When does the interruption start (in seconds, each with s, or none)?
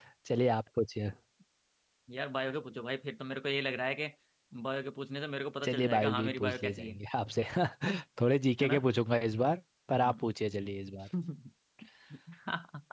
5.6 s